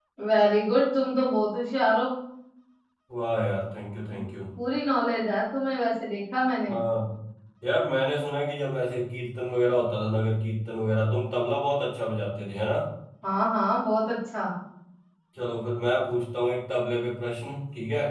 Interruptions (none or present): none